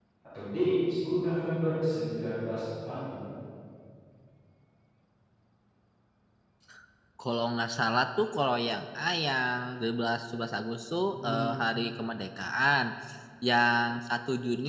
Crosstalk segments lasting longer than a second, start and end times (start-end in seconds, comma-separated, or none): none